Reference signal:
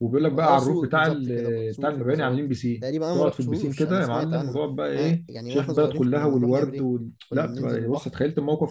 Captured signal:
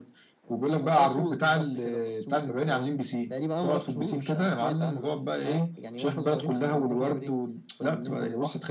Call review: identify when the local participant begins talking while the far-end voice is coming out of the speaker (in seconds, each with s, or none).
none